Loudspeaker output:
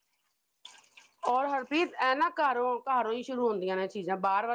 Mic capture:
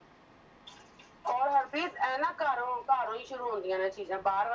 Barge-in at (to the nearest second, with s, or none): none